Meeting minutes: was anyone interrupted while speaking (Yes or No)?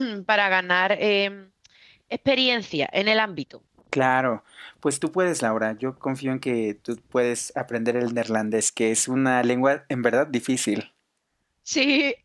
No